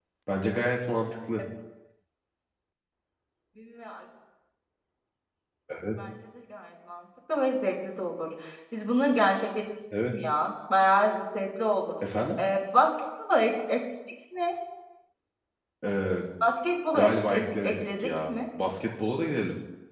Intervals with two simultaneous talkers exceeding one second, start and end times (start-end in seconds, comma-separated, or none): 16.9-18.3